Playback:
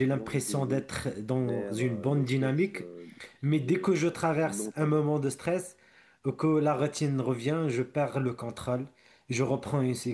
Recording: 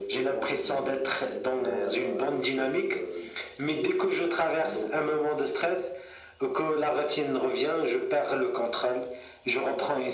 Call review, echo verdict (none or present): present